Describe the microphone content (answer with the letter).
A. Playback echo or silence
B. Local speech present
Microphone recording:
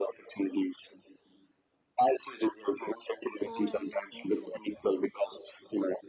B